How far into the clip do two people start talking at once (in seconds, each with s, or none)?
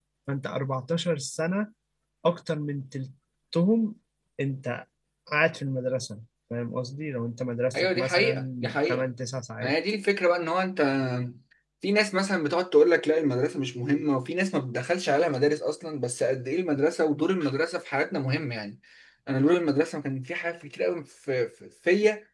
7.7 s